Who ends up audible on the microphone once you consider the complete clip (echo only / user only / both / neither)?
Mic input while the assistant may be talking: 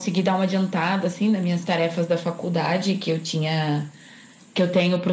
echo only